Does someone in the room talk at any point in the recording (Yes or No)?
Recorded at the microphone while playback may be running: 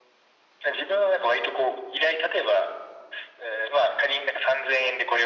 No